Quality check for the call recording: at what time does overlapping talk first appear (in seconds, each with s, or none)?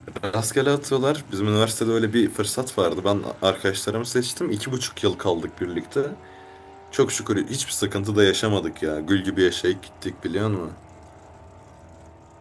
none